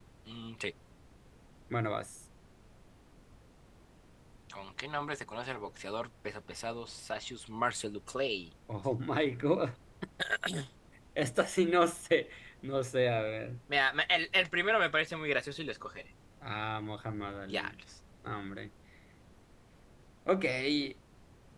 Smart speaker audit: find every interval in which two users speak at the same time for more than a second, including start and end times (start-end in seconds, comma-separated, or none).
none